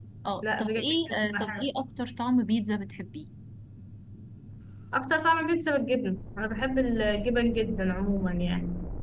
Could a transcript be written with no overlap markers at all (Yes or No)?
No